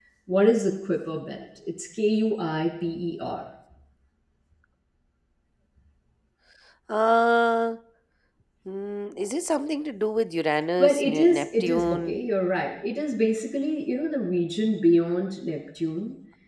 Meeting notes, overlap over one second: present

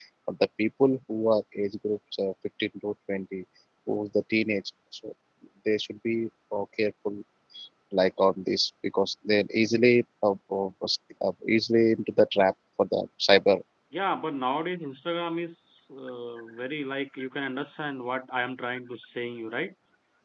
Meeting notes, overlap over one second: none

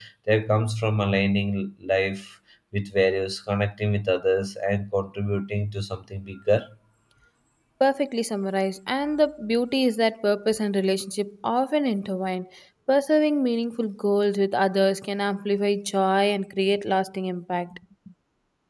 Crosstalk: none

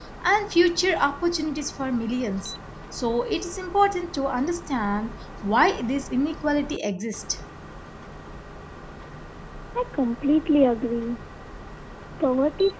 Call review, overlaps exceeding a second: none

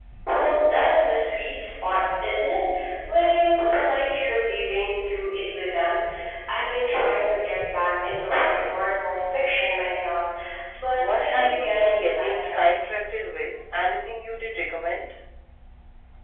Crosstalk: present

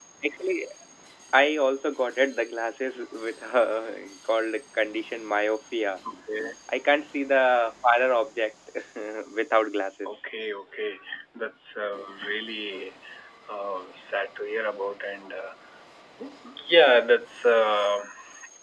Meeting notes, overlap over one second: none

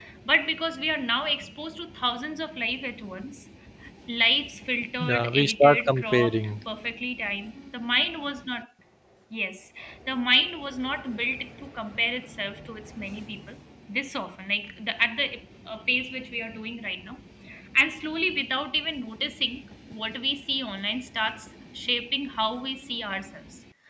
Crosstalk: present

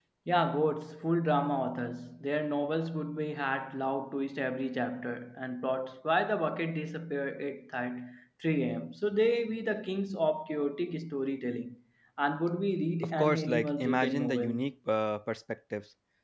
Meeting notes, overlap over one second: present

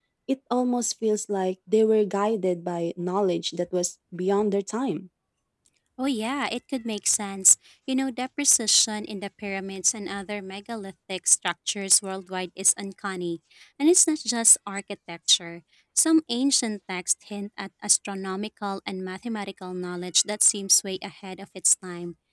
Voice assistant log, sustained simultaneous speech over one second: none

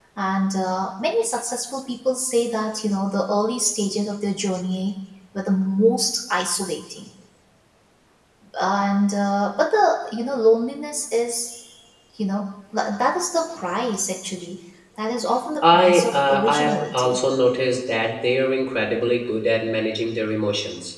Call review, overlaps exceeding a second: present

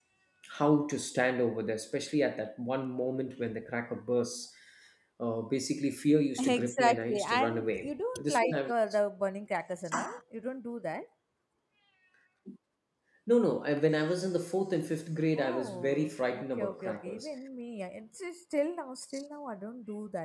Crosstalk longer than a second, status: present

